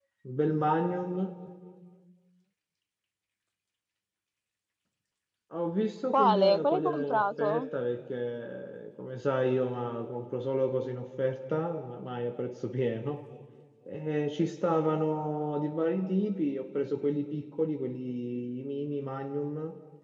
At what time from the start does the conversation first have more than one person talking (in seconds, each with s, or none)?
6.1 s